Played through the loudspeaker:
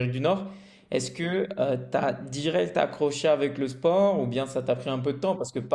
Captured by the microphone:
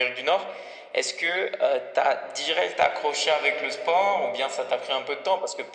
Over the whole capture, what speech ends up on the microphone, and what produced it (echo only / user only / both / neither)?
echo only